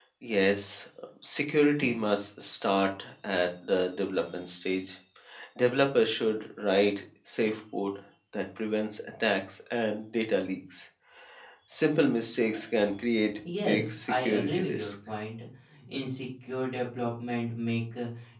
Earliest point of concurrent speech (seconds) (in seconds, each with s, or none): 13.7 s